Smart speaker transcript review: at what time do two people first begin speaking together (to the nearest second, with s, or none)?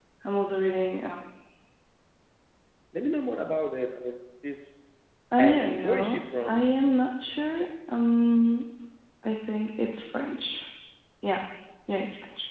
5 s